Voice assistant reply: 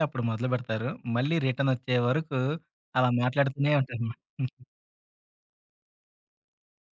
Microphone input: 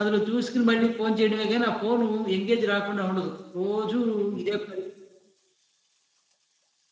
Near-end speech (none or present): present